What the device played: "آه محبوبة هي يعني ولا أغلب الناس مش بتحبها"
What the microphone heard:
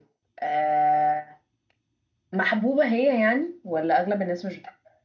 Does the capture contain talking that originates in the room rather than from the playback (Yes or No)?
No